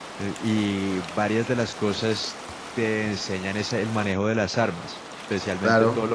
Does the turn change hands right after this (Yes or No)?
Yes